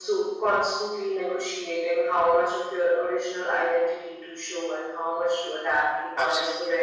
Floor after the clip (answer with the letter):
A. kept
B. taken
B